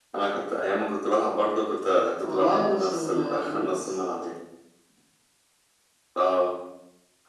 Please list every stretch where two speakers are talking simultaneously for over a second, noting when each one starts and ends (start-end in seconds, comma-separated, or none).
2.2-4.0